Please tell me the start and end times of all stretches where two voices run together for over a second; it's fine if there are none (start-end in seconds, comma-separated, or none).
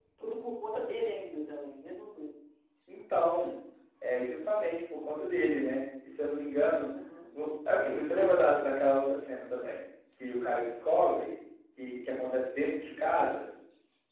none